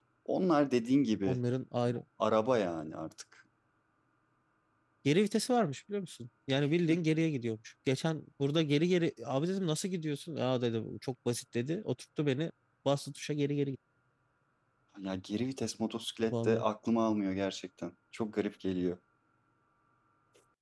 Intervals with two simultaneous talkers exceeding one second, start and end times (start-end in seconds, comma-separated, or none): none